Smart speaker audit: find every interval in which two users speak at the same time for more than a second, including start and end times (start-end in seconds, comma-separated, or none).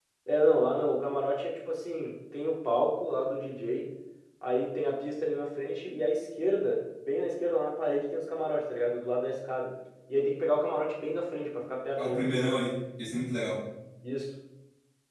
none